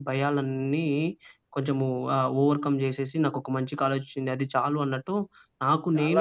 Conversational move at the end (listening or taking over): taking over